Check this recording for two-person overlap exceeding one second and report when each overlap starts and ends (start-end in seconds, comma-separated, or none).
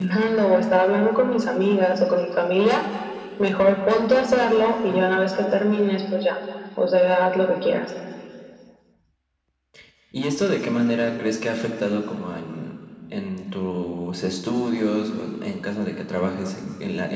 none